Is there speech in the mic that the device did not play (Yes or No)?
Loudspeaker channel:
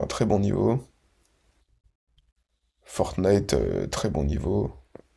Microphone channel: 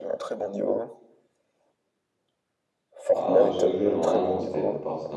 Yes